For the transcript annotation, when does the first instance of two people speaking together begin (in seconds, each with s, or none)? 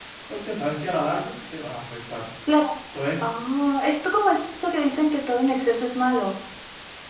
none